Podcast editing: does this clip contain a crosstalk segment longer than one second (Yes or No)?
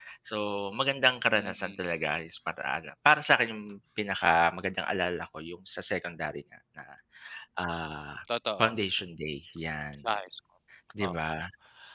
No